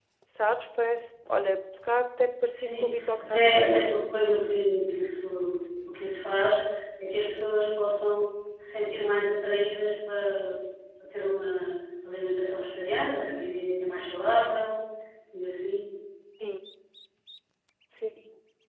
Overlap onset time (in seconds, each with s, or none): 2.6 s